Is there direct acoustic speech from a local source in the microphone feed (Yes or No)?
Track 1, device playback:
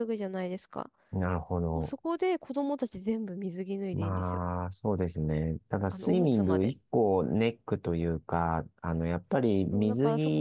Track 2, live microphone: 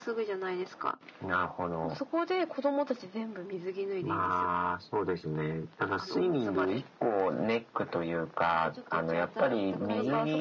Yes